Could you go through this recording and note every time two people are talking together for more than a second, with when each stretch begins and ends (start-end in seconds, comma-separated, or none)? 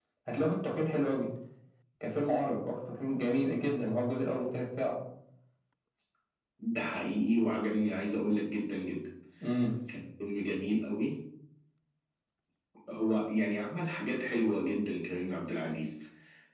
none